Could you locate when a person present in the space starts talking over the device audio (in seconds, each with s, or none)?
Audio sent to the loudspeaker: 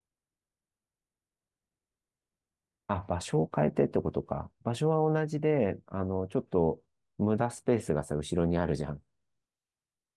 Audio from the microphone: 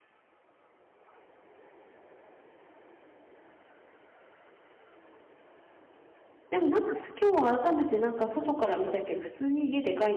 6.5 s